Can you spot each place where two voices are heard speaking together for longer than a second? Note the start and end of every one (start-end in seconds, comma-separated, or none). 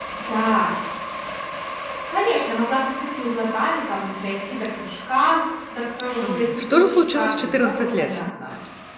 6.2-8.2